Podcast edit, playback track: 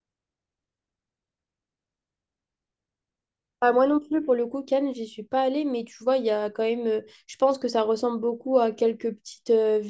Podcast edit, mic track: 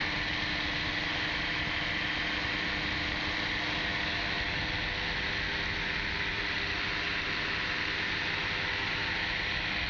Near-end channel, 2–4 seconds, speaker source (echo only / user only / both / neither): neither